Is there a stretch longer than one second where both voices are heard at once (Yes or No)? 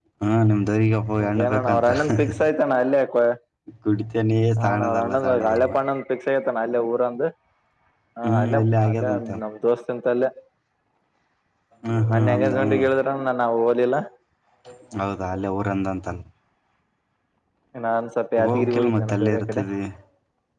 Yes